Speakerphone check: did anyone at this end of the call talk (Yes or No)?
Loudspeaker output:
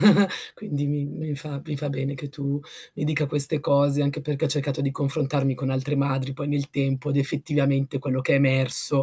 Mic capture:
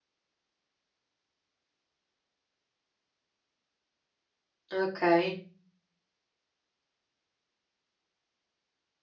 Yes